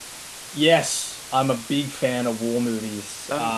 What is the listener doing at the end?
listening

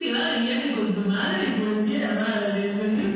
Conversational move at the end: taking over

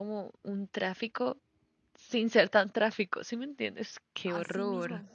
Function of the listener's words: taking over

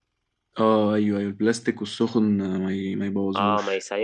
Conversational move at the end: taking over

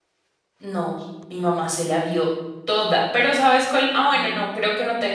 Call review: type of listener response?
listening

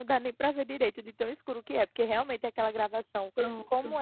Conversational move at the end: listening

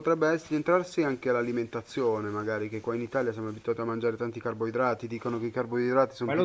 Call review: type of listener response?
taking over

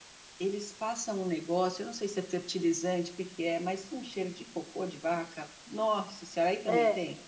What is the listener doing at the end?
taking over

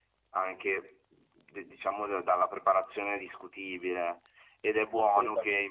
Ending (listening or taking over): listening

